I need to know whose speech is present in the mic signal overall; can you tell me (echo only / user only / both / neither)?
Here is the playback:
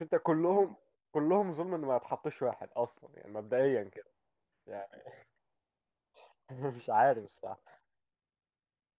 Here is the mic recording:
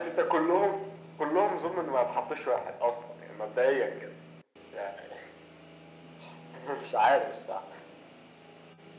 echo only